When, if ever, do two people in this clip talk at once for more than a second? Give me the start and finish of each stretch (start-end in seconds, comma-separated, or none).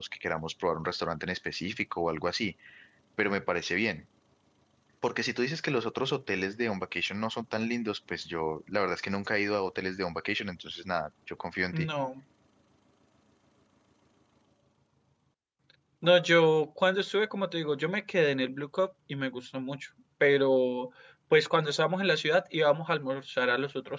none